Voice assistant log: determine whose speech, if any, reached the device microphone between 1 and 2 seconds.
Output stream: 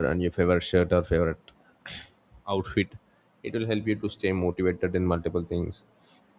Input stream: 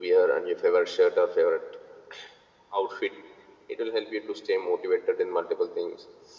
echo only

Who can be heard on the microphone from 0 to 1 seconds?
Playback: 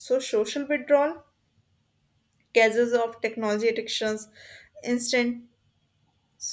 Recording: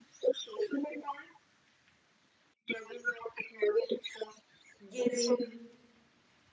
echo only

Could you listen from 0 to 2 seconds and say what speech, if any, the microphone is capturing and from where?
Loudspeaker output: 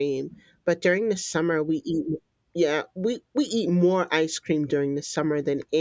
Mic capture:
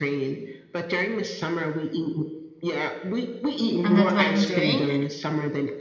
echo only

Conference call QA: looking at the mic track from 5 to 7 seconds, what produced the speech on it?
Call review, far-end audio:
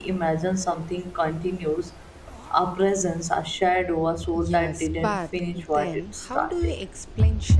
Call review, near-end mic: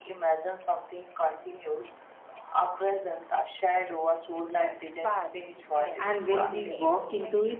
both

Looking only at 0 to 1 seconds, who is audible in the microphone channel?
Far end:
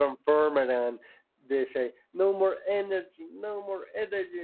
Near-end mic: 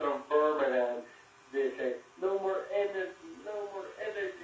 echo only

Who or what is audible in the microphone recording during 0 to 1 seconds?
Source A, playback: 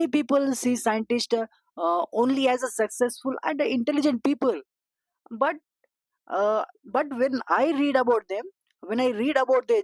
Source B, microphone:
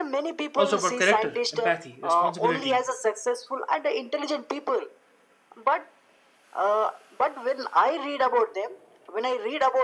both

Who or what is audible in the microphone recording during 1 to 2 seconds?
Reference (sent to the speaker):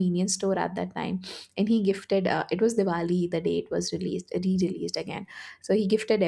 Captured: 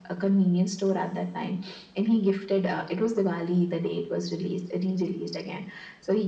echo only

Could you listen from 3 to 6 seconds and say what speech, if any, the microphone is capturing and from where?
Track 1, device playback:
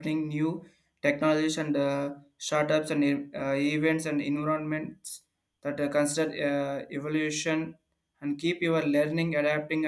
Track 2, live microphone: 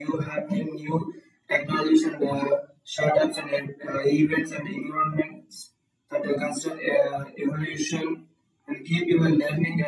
echo only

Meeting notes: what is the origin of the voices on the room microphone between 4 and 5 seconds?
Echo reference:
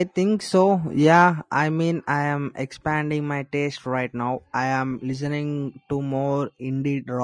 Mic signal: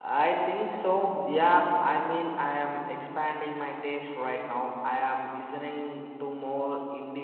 echo only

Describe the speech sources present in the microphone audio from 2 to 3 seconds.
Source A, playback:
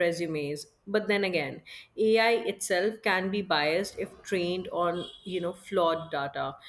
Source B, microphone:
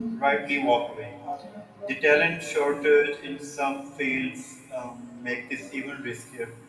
user only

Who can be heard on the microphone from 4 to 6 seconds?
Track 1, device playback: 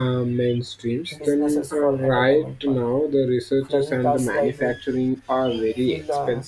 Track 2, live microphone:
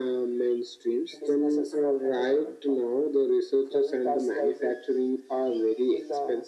echo only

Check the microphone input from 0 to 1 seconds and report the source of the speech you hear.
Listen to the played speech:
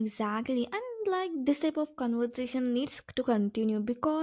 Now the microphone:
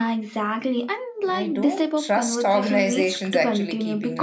echo only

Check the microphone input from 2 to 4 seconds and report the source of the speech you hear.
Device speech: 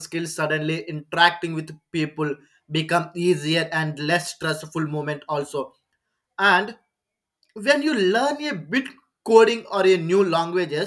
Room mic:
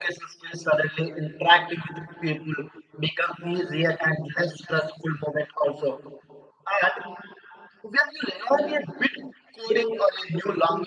echo only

